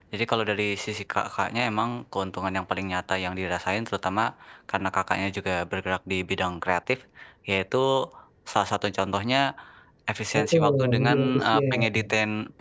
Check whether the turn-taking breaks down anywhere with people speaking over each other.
Yes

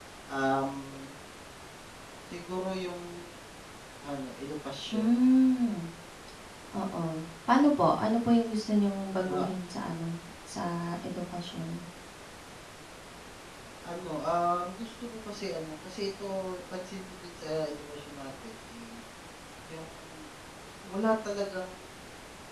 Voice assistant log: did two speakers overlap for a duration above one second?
No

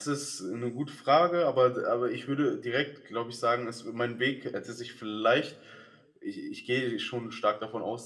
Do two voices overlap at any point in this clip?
No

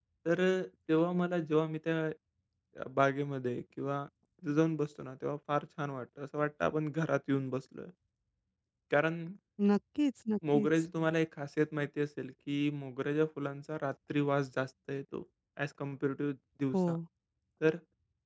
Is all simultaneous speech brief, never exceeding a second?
Yes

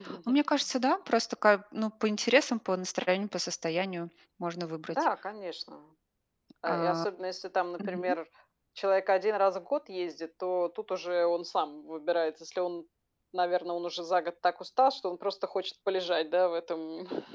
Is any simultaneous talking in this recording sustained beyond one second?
No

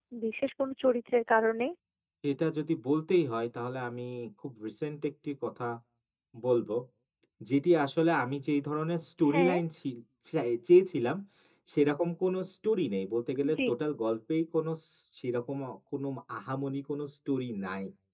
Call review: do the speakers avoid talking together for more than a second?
Yes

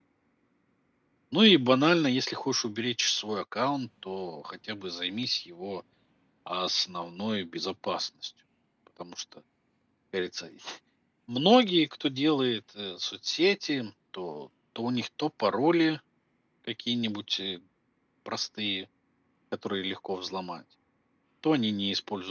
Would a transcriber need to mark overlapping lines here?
No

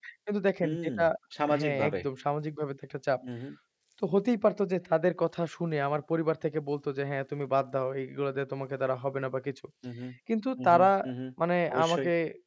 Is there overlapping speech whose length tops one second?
No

